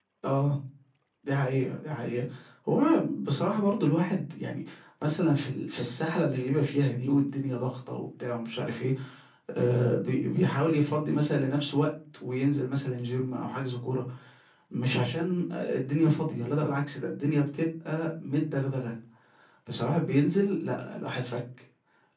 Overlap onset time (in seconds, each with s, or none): none